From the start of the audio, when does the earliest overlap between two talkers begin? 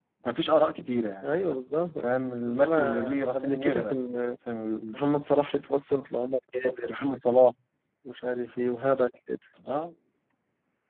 2.5 s

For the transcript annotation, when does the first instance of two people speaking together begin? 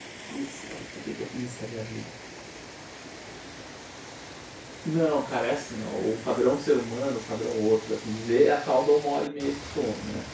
none

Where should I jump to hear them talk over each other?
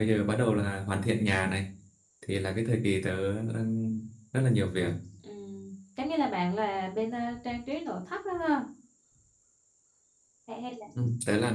none

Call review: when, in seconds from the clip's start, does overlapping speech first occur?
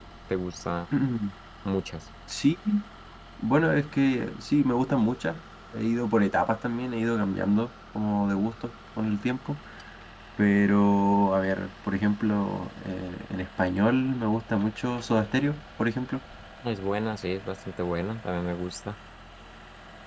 none

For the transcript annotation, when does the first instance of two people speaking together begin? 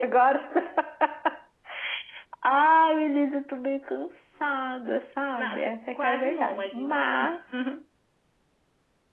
5.4 s

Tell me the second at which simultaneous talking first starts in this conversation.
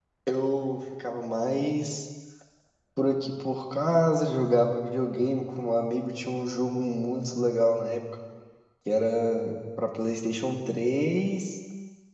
none

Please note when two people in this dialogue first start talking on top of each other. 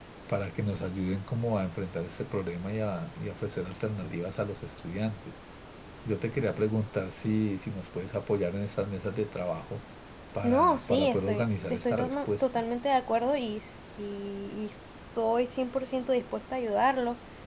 10.4 s

